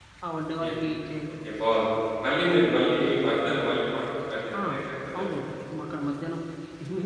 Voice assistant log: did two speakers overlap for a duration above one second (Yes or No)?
No